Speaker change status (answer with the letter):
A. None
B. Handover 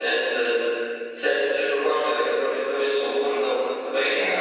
A